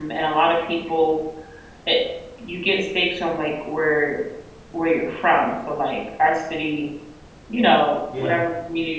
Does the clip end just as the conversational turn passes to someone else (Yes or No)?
No